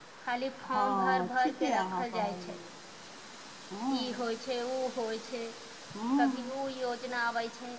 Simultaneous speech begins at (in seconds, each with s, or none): 0.7 s